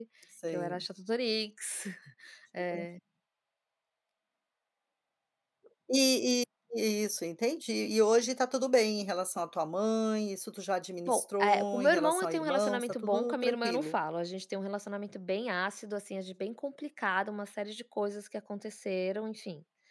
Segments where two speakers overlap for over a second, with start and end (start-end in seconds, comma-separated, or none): 11.1-13.9